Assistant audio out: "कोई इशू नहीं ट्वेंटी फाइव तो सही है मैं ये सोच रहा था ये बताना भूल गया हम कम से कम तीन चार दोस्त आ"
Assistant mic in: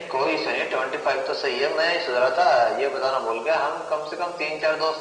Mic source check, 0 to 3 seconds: echo only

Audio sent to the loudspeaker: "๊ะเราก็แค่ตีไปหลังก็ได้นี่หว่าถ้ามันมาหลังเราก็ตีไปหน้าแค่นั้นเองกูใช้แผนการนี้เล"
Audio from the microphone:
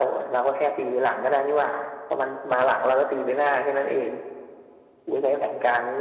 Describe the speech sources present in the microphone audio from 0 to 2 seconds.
echo only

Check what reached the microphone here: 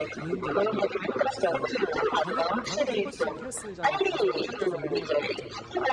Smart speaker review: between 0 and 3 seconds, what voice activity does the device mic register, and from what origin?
both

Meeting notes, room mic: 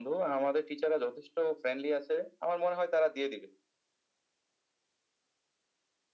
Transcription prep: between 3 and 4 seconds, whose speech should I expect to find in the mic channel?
echo only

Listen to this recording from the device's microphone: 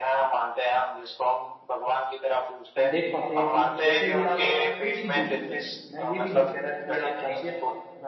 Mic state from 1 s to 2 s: echo only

